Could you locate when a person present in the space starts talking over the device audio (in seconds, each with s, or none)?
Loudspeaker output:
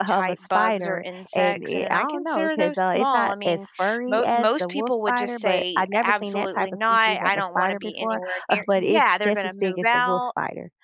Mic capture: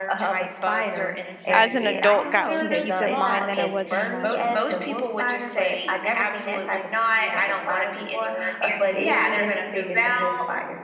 1.5 s